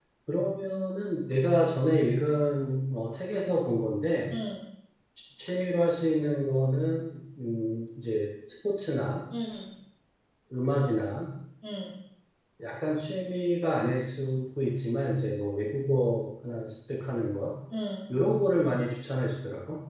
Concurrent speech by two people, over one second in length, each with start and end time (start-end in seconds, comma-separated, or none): none